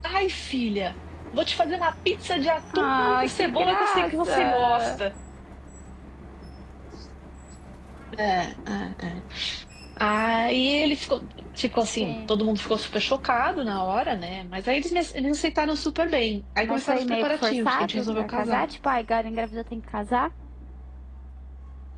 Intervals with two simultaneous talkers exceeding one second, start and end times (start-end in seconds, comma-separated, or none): 2.8-5.0, 16.6-18.6